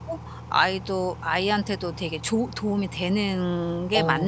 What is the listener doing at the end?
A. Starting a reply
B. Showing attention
A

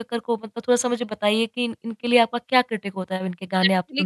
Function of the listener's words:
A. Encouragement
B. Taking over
B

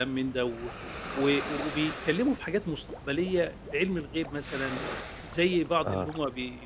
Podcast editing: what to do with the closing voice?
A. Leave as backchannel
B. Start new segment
A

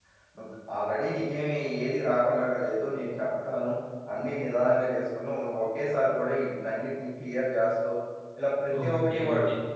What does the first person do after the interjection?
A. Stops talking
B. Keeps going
A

